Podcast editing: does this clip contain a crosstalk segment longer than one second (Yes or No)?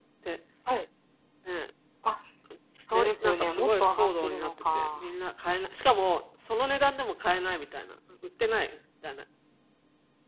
Yes